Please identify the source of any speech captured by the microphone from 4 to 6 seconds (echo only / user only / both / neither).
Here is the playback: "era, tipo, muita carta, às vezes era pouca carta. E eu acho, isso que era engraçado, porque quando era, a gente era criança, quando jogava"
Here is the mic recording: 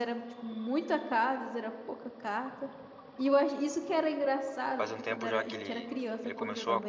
both